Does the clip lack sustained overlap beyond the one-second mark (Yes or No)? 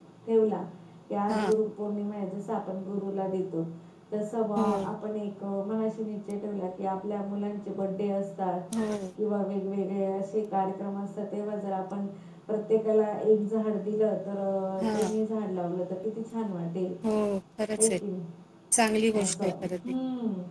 Yes